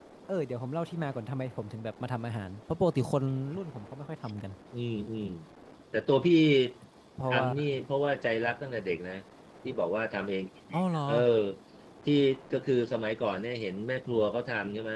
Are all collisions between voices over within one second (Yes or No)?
Yes